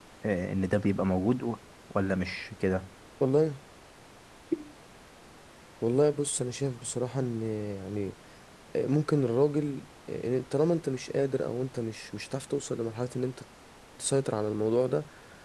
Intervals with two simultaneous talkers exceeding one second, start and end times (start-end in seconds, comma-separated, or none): none